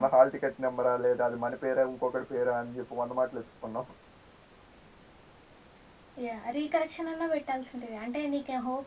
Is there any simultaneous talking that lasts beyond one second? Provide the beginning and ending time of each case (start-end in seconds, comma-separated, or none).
none